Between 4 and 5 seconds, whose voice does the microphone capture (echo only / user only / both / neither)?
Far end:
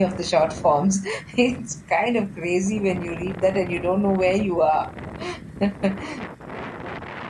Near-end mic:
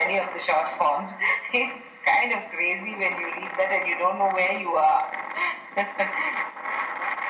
echo only